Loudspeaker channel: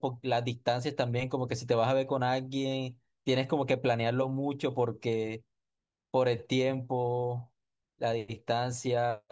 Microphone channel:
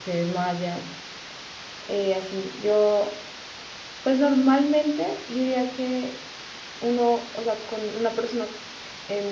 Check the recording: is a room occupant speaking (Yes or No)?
Yes